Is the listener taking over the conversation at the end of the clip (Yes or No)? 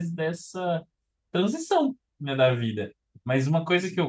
No